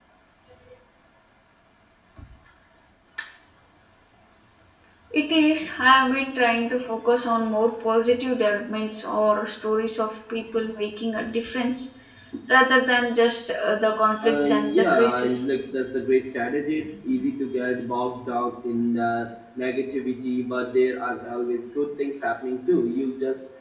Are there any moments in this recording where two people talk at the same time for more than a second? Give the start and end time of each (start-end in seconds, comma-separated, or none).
14.2-15.4